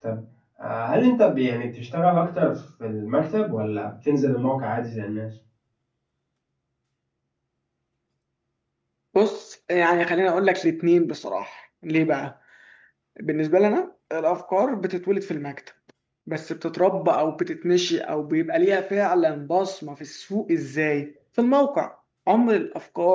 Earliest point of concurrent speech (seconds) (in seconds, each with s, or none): none